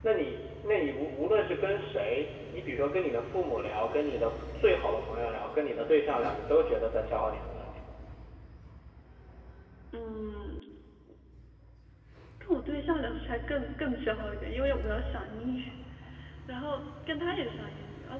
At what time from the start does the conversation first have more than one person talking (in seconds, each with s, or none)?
none